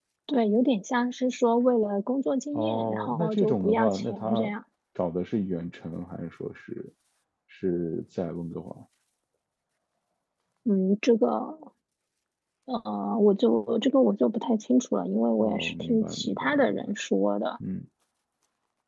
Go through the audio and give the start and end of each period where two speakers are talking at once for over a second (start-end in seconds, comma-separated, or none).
2.5-4.5, 15.4-16.8